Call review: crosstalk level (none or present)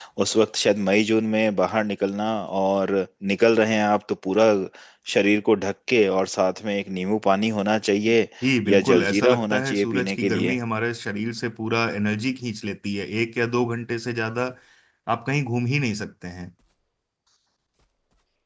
present